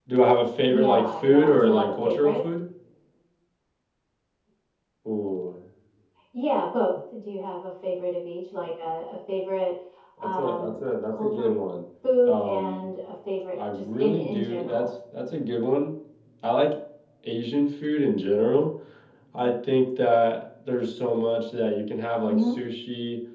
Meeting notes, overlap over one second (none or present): present